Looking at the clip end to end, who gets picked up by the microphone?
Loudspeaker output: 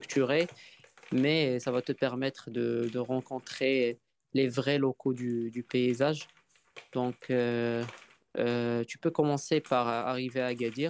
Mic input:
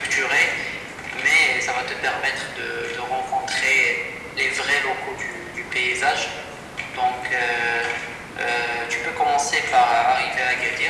echo only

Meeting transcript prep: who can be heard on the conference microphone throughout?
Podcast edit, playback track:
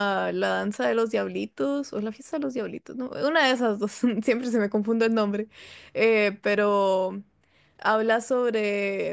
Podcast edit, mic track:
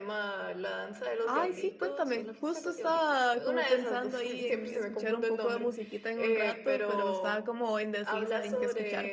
both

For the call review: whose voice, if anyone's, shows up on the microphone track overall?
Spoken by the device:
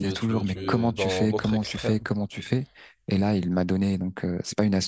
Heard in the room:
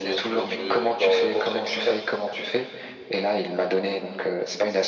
echo only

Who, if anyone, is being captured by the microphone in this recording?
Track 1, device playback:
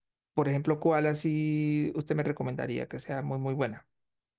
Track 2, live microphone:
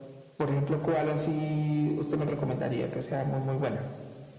echo only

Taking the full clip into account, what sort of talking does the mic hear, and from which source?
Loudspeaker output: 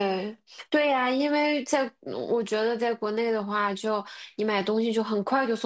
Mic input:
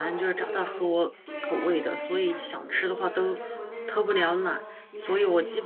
both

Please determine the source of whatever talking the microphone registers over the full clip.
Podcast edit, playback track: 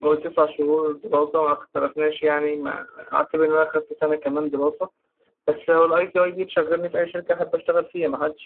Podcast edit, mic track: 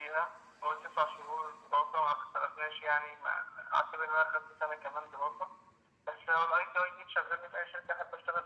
echo only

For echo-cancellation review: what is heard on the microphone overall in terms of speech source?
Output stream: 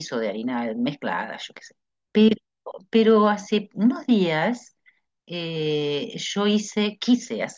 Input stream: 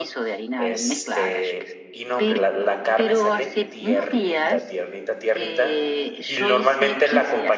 both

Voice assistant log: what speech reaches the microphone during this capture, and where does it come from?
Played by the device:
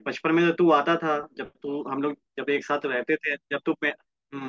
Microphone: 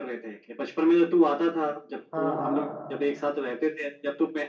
both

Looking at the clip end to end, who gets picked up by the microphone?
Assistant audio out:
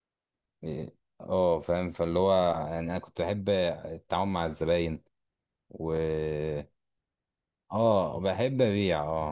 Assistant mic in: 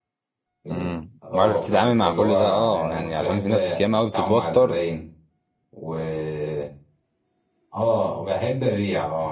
both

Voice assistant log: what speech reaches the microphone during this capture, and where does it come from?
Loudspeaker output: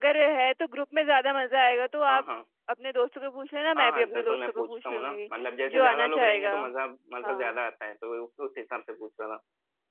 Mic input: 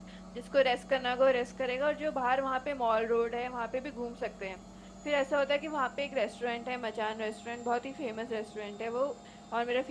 user only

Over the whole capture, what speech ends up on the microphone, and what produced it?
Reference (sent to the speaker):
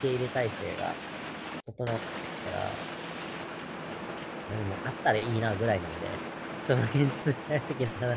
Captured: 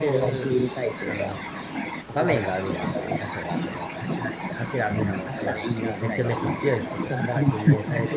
both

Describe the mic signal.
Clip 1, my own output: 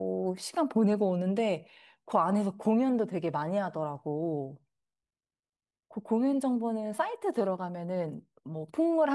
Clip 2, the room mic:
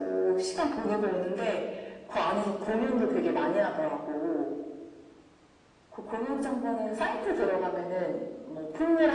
echo only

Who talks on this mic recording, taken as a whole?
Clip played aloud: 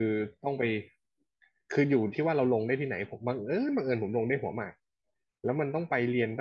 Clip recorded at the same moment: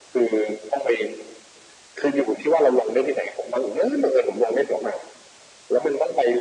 echo only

